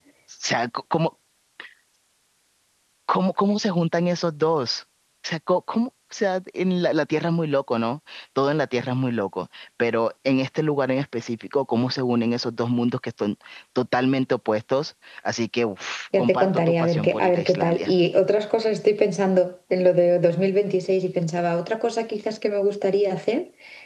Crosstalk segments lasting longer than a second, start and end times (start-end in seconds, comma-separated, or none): 16.2-17.9